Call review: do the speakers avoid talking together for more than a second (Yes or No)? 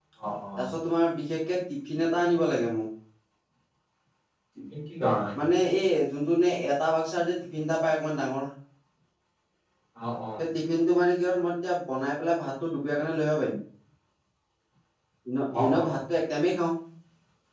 Yes